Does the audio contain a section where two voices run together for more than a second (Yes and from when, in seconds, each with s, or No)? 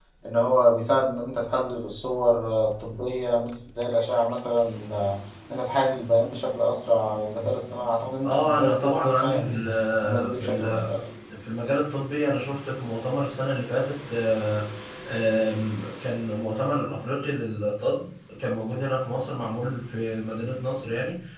Yes, from 8.2 s